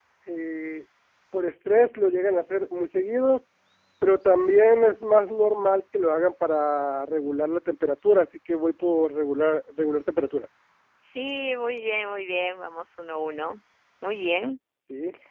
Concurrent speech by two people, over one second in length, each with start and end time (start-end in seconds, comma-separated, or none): none